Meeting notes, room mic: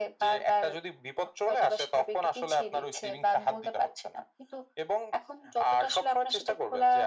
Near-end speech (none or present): none